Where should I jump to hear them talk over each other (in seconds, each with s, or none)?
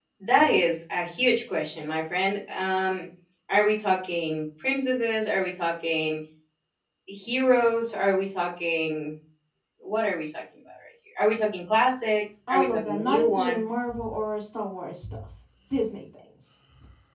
12.5 s